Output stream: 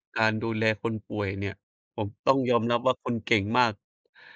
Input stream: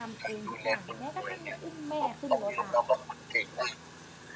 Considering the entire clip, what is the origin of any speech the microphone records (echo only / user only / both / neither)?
both